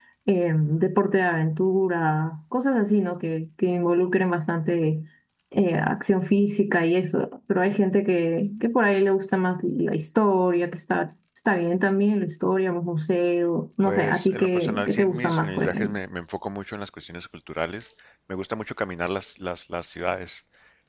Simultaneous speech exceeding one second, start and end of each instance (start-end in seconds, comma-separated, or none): 13.8-16.0